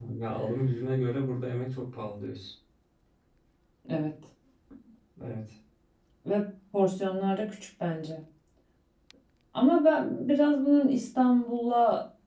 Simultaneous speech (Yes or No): No